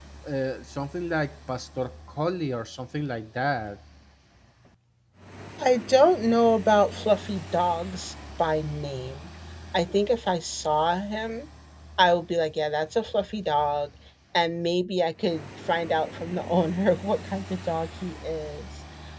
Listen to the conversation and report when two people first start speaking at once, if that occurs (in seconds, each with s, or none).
none